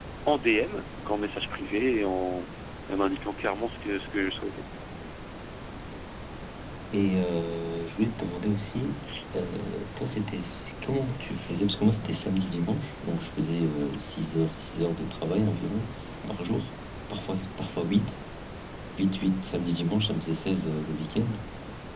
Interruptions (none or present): none